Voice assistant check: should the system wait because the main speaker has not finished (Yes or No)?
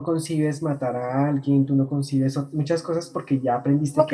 No